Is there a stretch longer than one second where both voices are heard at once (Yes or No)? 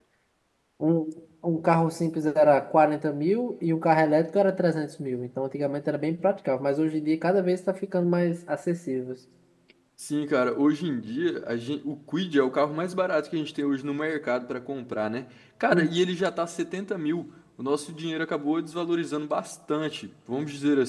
No